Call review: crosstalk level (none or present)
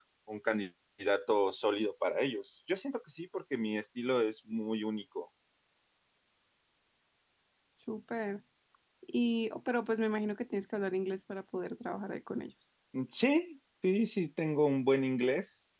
none